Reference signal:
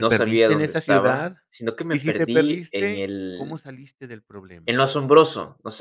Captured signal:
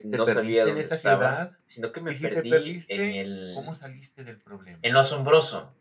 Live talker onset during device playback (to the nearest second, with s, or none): none